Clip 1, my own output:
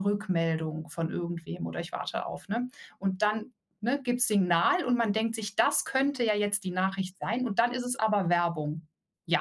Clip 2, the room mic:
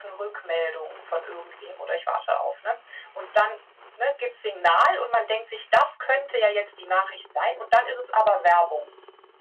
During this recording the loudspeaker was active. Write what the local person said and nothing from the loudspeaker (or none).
none